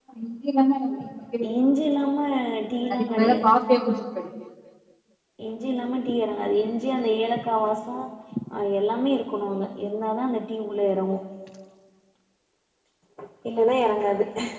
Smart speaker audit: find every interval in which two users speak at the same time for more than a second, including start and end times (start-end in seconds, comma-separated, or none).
none